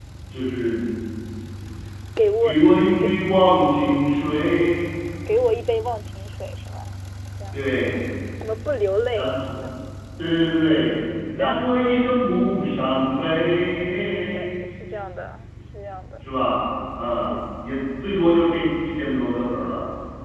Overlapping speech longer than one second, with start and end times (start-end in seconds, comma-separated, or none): none